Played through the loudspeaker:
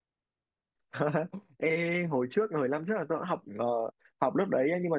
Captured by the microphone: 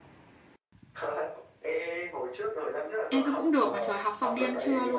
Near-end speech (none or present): present